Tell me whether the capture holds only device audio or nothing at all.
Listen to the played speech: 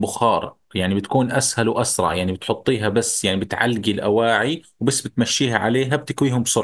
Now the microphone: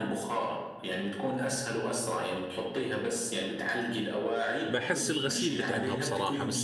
No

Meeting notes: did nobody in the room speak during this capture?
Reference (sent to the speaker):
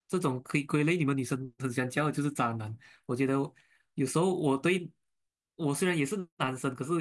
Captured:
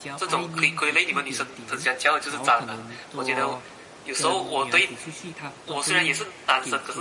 No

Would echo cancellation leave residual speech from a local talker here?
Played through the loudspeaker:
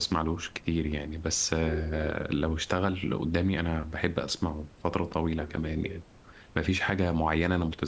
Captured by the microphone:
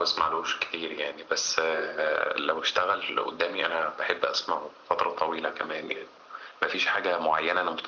No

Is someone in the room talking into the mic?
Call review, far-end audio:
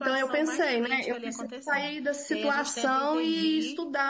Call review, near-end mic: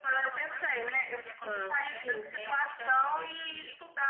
Yes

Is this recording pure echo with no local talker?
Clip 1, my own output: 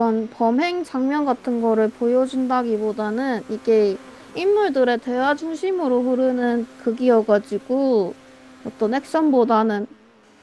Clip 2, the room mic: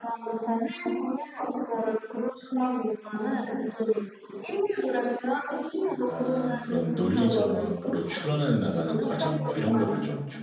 No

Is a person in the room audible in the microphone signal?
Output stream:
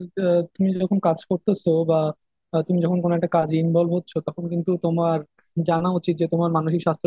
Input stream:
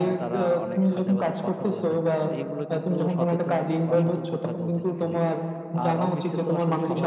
Yes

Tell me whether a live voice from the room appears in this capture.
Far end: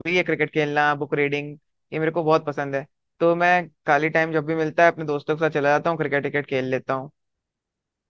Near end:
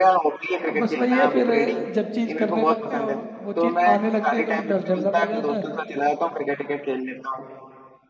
Yes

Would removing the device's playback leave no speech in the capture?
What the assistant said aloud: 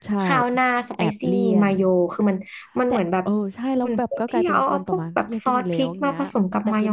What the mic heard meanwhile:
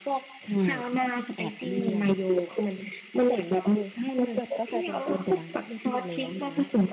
Yes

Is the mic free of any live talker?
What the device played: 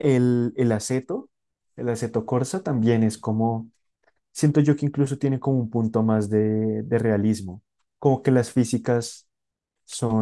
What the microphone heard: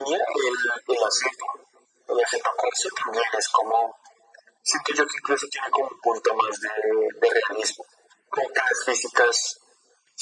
Yes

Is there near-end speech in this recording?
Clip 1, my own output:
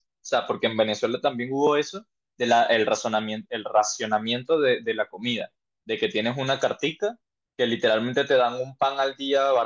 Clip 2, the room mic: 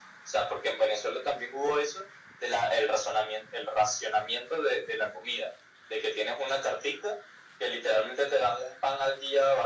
No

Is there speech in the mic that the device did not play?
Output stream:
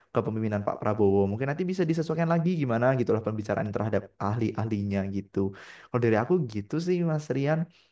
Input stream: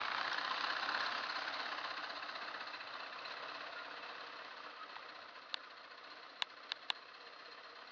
No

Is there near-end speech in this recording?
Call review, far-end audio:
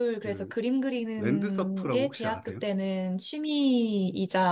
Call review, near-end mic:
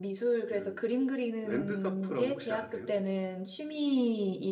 No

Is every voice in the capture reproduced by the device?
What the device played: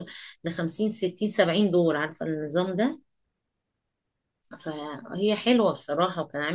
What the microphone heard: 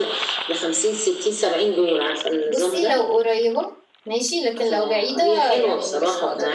No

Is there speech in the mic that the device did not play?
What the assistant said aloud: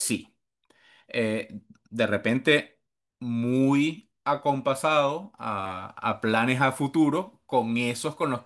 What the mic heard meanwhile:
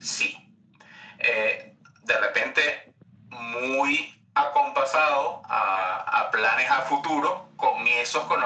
No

